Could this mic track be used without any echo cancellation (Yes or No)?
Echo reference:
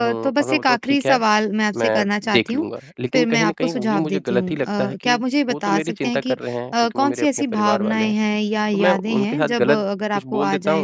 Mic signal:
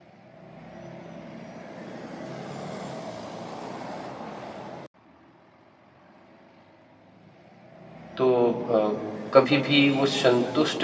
Yes